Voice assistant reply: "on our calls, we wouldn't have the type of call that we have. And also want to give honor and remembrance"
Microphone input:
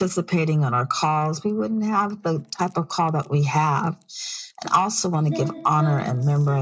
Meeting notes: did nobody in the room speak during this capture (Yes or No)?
No